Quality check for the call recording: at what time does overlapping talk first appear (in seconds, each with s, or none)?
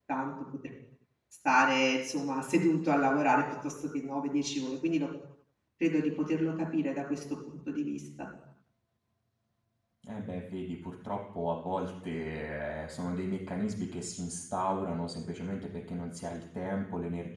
none